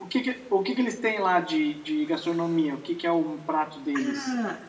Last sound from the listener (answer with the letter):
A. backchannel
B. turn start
B